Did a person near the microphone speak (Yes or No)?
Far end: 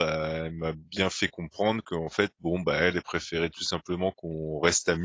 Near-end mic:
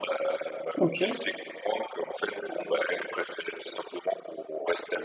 Yes